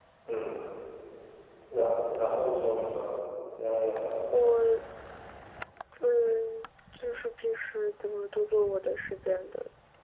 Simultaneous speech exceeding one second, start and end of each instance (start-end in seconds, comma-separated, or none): none